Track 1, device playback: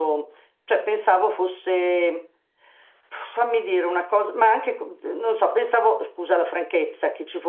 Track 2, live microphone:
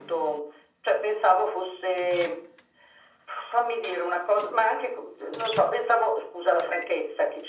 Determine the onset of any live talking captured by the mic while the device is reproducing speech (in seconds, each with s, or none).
none